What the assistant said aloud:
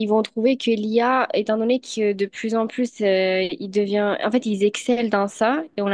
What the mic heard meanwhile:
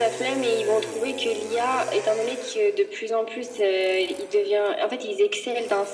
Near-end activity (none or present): none